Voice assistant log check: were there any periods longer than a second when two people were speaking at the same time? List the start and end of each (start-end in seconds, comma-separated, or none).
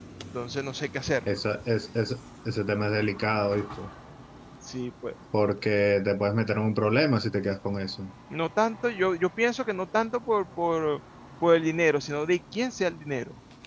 none